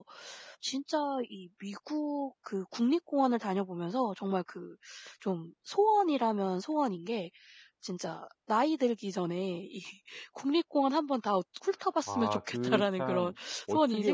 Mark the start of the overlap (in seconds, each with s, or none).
12.1 s